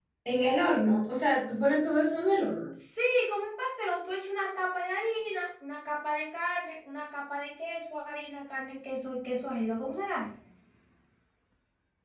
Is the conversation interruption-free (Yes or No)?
Yes